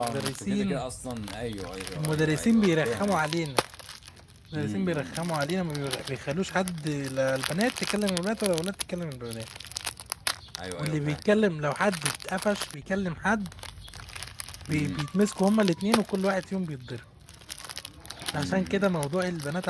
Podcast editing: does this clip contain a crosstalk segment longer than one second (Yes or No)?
Yes